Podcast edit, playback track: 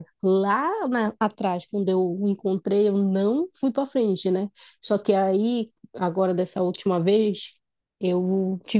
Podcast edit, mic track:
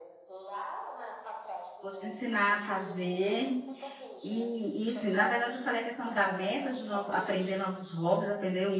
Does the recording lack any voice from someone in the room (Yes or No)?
No